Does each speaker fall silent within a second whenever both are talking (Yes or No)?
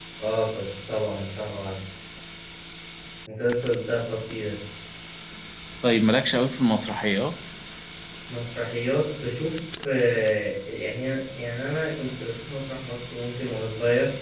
Yes